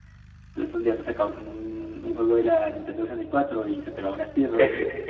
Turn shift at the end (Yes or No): Yes